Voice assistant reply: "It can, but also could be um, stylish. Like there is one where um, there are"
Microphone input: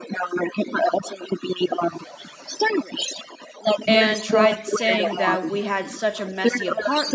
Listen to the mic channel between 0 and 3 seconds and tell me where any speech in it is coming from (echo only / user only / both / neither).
echo only